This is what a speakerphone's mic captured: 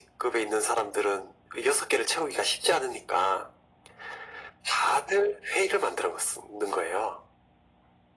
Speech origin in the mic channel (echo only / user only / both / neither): echo only